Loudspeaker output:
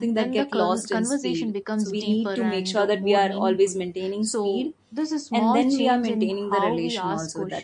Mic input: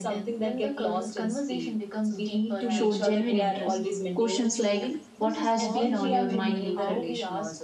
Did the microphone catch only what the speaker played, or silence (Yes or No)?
No